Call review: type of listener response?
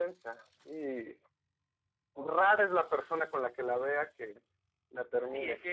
taking over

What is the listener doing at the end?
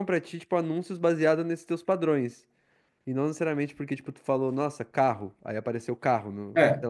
taking over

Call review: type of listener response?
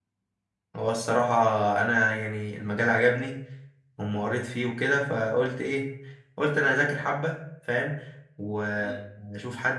listening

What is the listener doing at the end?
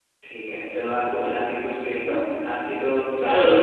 taking over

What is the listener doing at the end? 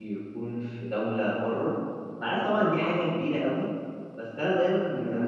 listening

